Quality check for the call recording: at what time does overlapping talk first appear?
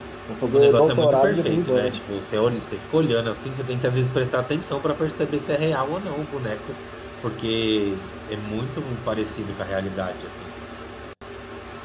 0.5 s

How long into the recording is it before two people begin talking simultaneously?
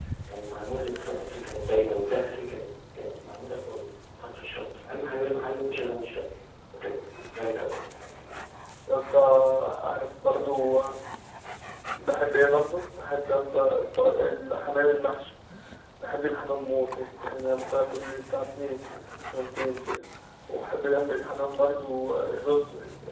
none

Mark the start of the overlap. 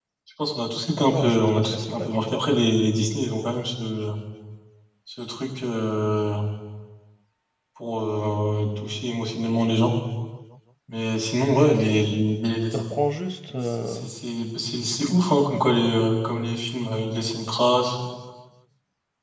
1.1 s

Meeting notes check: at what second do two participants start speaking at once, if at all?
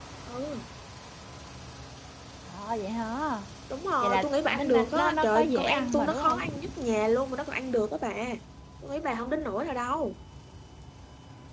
4.0 s

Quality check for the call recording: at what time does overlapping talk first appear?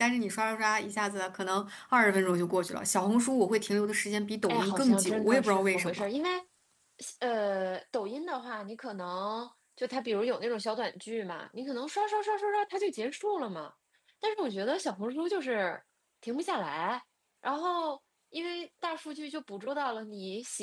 4.5 s

